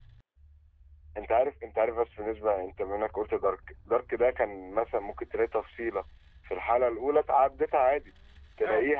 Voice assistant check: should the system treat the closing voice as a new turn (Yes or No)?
No